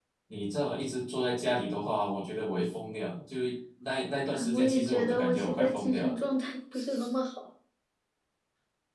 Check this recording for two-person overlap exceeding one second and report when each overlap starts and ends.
4.3-6.2

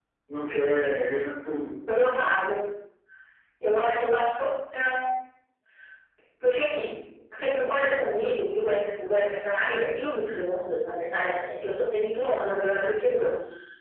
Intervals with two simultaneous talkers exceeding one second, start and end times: none

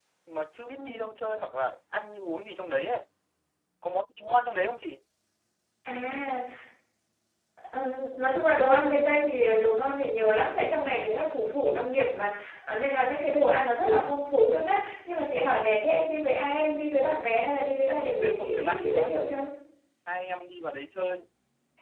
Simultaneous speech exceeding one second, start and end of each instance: 17.9-19.2

